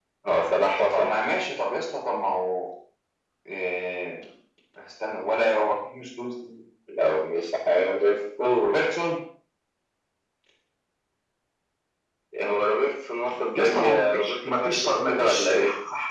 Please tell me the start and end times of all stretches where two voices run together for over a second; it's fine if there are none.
13.5-15.5

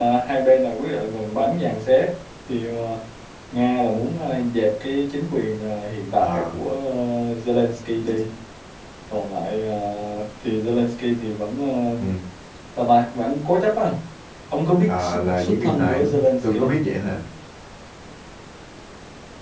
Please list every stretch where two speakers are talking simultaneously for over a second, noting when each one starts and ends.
14.9-16.8

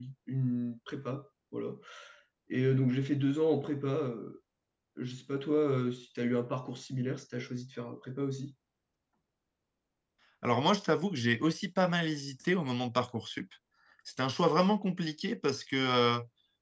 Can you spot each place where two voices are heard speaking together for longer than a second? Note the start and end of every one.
none

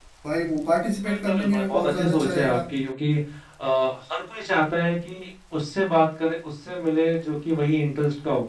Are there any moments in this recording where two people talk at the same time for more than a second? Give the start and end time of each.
1.0-2.6

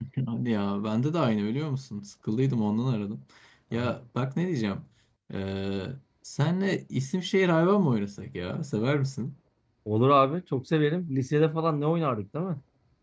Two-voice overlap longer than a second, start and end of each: none

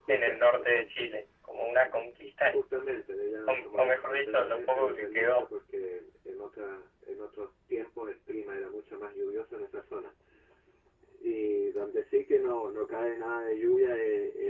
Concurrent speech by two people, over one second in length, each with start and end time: 3.5-5.4

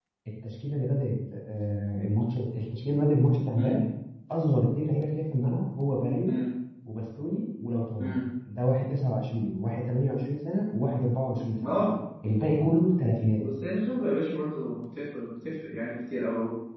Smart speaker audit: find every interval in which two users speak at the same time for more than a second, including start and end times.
none

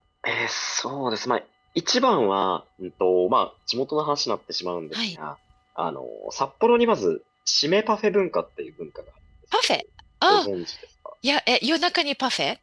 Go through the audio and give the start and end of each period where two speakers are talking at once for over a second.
none

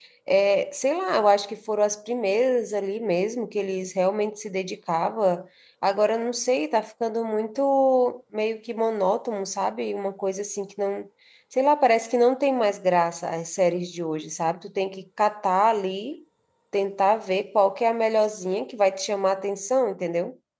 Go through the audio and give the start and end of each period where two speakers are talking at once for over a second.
none

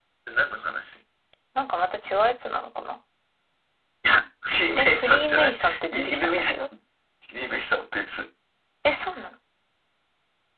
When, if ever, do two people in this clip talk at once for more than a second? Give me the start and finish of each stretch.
4.8-6.5

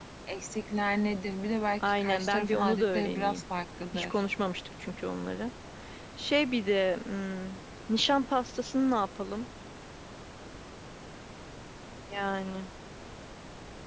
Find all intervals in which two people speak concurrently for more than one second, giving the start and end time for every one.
2.0-3.4

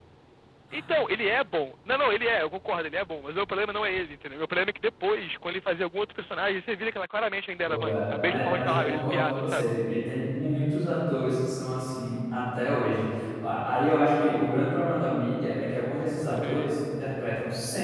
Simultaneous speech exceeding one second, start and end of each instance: 7.7-9.7

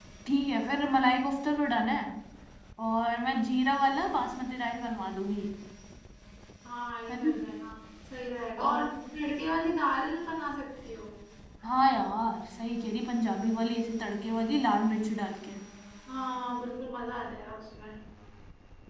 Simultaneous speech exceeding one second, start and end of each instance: none

